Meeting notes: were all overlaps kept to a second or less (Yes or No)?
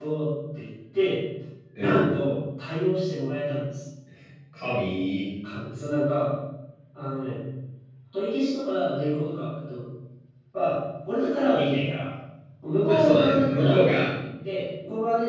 No